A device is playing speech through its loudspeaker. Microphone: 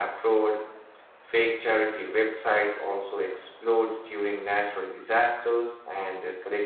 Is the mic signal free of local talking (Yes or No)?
Yes